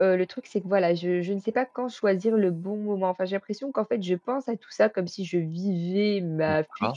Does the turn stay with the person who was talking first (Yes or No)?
Yes